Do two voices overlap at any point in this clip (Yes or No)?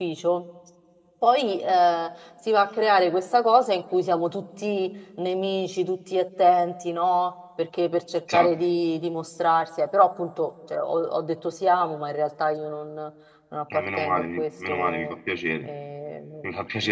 Yes